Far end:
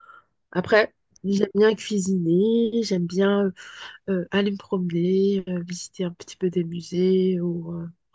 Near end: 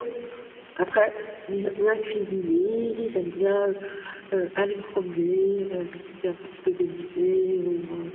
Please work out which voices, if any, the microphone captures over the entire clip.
echo only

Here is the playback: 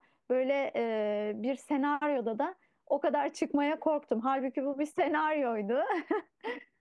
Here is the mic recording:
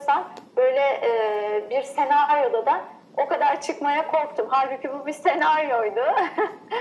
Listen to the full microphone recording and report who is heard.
echo only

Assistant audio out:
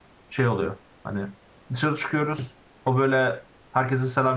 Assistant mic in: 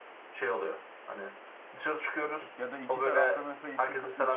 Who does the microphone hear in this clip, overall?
both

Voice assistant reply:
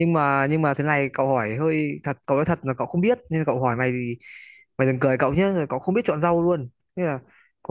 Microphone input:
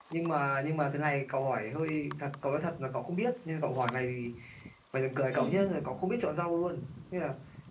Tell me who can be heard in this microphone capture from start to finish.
both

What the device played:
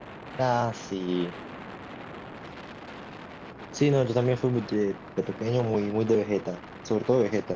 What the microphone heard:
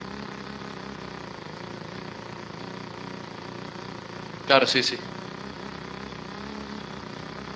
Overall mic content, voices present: user only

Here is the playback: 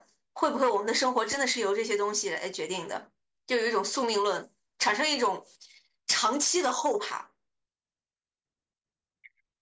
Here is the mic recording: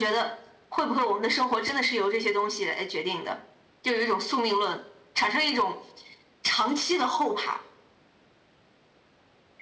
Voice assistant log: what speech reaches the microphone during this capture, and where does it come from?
echo only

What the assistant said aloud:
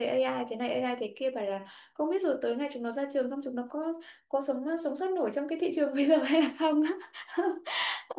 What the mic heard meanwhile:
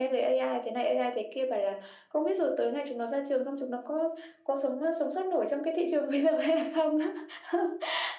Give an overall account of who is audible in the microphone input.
echo only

